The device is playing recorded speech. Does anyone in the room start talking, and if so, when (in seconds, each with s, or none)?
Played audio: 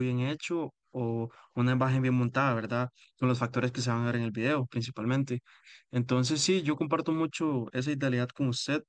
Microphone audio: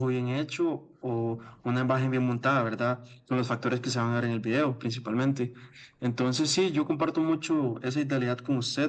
none